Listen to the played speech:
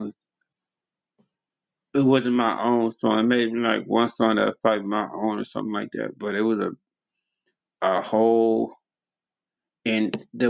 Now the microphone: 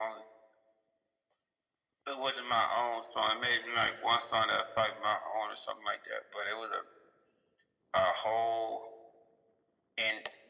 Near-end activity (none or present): none